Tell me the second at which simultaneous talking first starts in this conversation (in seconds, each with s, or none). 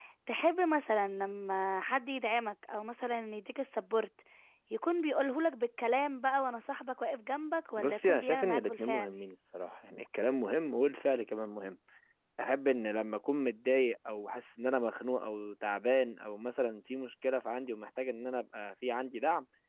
7.8 s